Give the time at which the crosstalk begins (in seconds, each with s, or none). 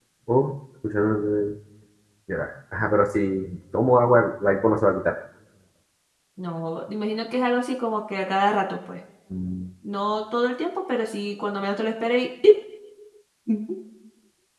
none